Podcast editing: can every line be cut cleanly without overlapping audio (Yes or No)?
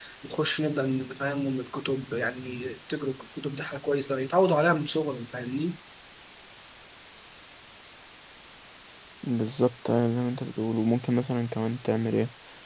Yes